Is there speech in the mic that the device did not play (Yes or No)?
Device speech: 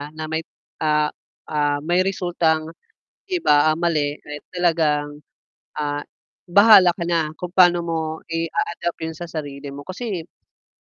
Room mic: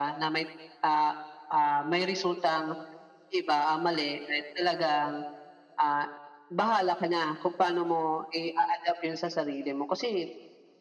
No